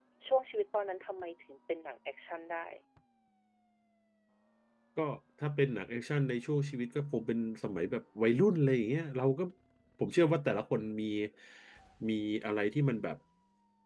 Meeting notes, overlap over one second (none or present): none